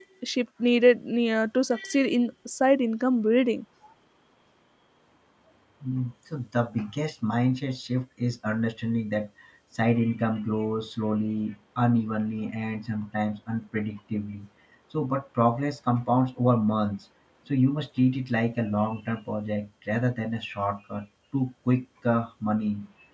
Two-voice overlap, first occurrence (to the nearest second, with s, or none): none